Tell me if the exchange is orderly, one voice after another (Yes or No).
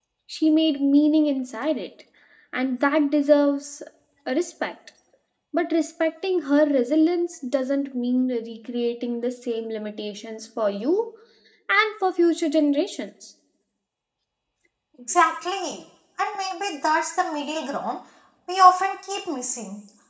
Yes